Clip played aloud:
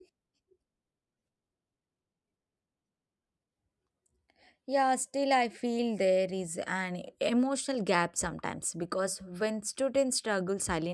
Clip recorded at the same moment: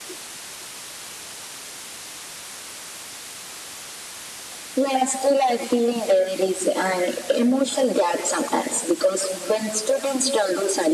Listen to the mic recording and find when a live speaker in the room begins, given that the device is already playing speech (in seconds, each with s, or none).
none